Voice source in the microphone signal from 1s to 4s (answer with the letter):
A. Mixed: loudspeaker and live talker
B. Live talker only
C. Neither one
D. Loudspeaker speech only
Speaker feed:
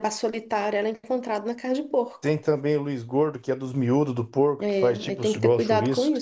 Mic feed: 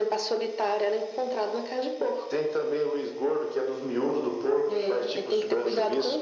D